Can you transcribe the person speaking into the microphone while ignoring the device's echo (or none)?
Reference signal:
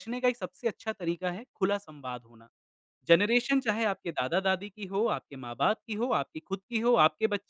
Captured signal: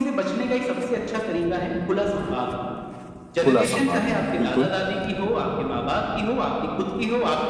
खुला संवाद होना, बिल्कुल।